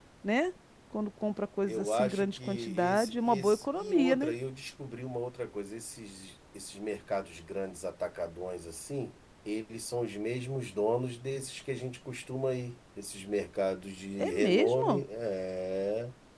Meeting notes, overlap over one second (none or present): present